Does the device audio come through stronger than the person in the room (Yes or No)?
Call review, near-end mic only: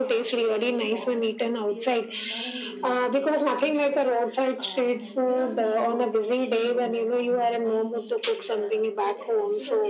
Yes